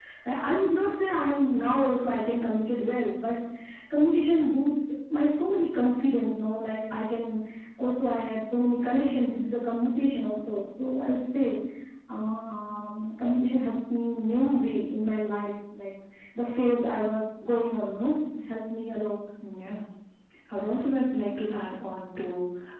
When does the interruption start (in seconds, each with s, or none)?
none